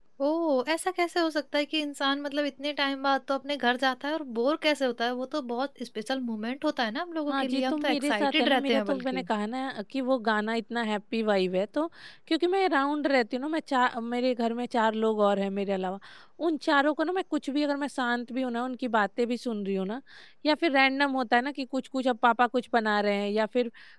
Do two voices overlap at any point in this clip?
Yes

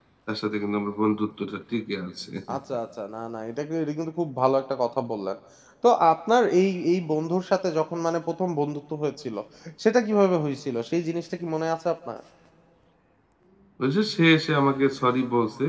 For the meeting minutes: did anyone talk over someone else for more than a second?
No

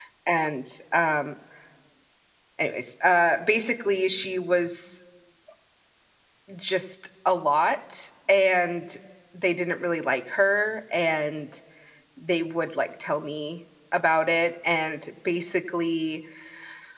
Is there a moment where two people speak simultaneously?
No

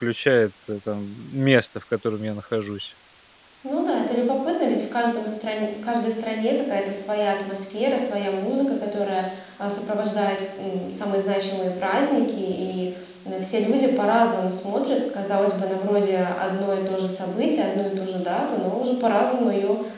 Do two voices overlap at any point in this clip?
No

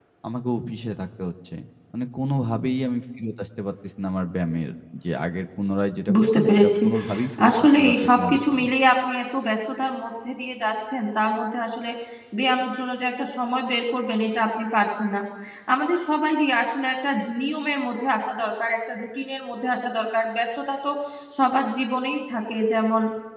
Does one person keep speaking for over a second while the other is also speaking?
Yes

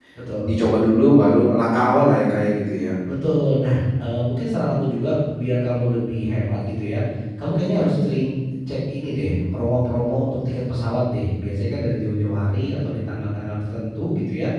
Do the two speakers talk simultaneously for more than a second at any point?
No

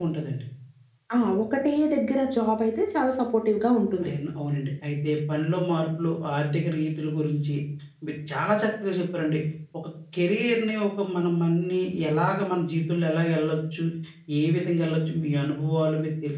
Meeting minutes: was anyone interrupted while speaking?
No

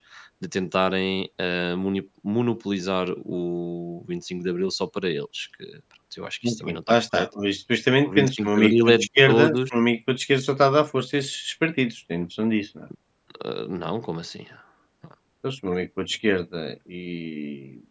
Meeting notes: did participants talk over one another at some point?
Yes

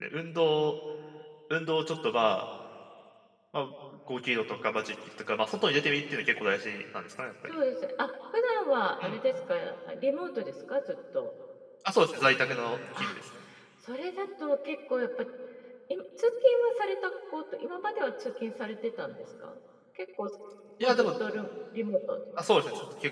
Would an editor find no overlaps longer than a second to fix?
Yes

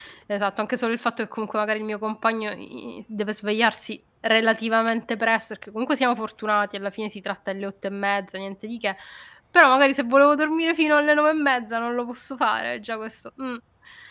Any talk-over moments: No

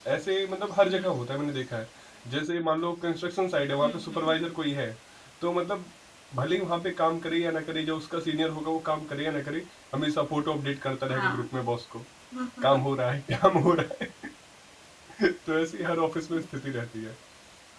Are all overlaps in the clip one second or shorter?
Yes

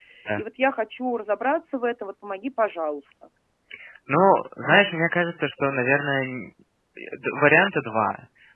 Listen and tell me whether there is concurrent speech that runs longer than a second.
No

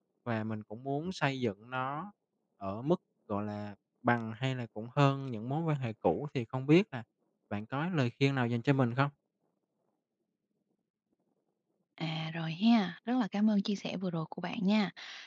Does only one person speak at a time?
Yes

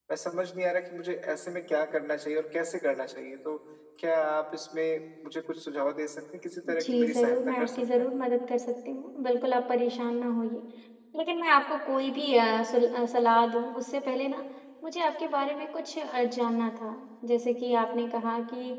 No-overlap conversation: No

